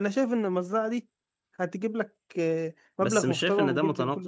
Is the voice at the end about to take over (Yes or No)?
Yes